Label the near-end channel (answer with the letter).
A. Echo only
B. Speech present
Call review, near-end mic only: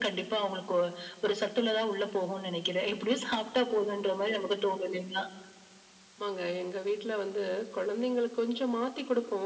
A